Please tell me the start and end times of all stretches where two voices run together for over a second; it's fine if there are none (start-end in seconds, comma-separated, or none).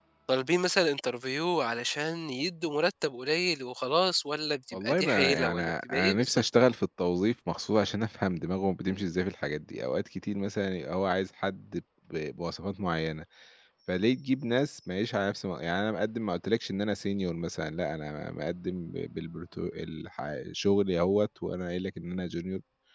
4.7-6.7